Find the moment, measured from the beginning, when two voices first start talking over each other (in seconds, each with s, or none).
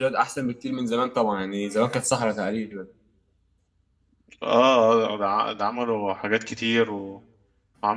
none